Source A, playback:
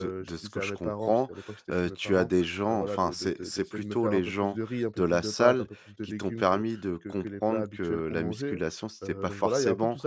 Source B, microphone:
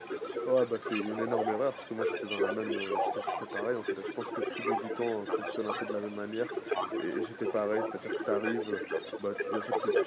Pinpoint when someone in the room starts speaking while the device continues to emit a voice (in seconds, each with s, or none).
0.5 s